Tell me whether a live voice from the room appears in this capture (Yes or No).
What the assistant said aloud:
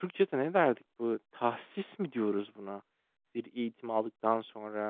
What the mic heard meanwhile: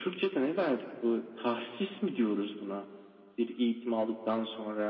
No